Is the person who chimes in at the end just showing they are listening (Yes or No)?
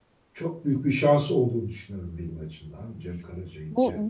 No